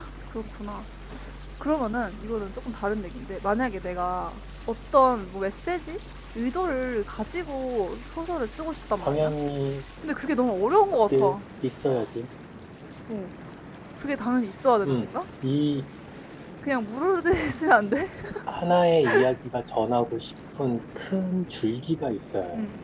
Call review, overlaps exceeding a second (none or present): none